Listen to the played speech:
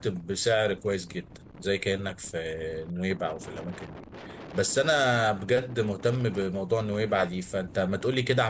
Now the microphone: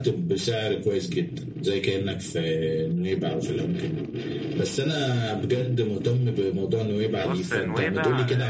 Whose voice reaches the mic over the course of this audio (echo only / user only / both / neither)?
both